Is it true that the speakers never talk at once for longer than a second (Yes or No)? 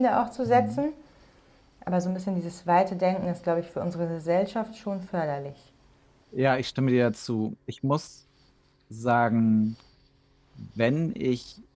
Yes